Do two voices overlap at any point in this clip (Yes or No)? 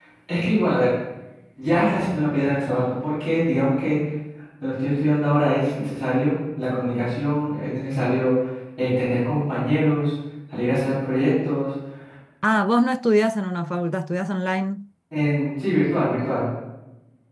No